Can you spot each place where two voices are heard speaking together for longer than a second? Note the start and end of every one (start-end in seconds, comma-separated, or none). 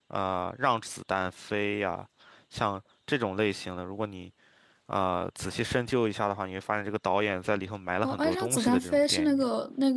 8.0-9.4